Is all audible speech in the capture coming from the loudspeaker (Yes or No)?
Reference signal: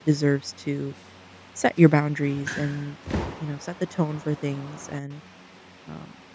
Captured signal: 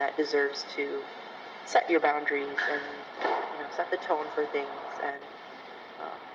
Yes